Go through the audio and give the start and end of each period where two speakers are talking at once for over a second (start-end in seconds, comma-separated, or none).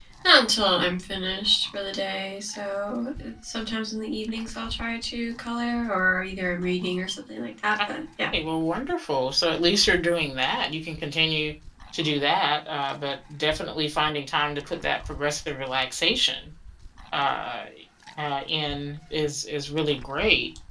none